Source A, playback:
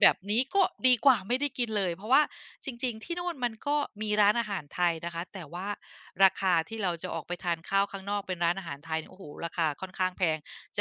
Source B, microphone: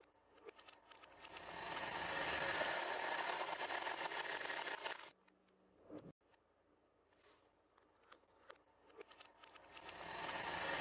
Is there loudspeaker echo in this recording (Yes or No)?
No